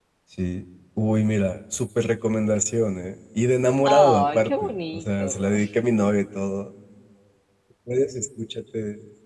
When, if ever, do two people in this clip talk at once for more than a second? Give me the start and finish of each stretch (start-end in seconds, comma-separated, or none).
3.9-5.5